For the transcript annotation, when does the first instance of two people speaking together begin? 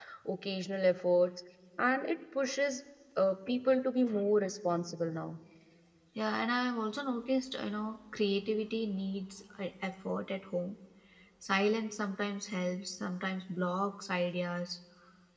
none

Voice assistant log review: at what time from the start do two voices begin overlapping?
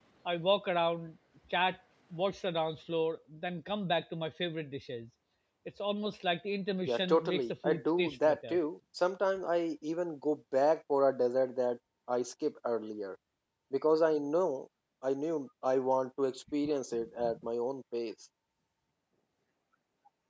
7 s

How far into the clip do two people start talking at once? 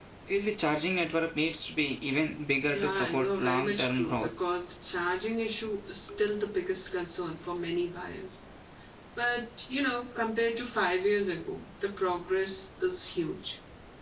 3 s

